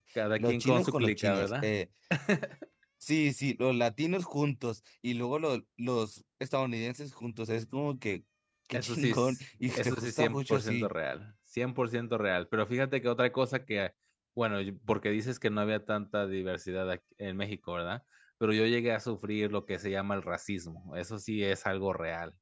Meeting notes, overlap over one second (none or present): present